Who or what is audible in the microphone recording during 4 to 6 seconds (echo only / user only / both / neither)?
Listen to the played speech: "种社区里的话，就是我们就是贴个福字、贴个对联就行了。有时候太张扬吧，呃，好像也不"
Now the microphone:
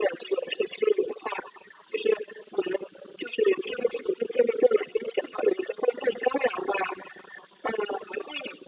echo only